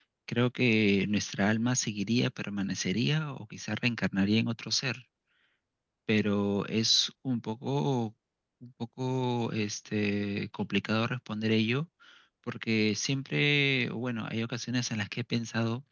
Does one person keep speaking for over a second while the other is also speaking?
No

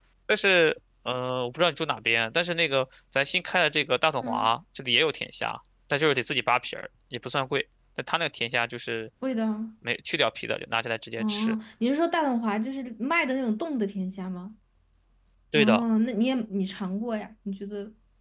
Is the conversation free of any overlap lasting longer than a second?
Yes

